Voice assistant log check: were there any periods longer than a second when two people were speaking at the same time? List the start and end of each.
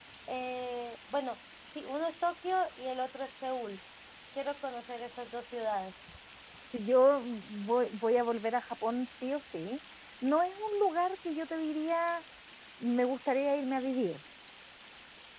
none

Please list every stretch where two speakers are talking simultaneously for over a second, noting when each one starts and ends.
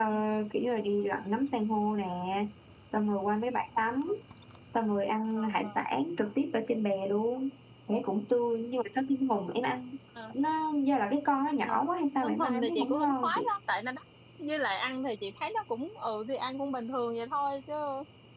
12.2-13.5

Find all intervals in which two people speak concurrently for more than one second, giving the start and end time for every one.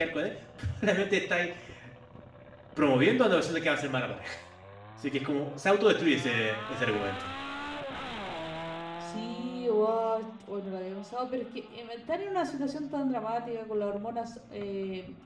none

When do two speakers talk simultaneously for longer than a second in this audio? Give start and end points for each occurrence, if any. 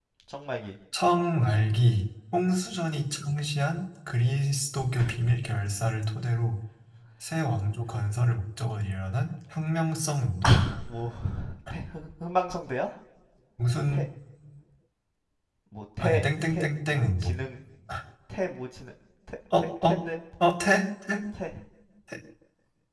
16.0-17.4

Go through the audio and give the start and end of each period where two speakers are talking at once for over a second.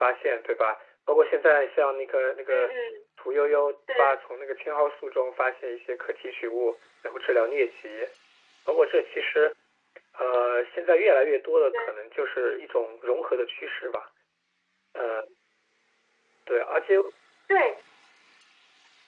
none

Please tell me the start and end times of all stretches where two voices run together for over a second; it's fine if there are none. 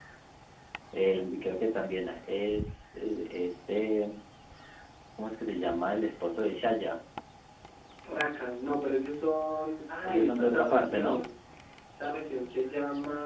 10.0-11.2

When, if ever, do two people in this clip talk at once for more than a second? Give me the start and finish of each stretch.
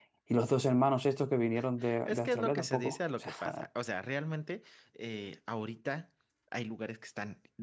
2.0-3.6

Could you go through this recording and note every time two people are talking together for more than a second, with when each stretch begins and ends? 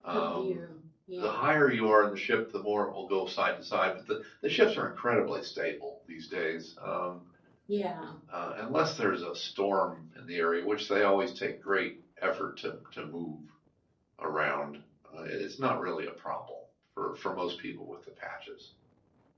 none

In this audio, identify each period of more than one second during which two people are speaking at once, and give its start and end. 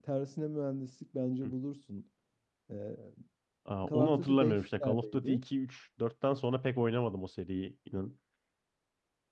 3.9-5.4

